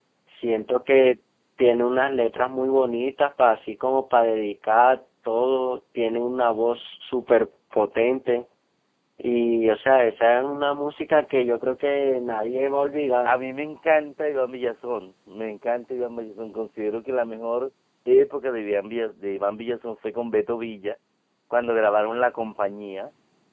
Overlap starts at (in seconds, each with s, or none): none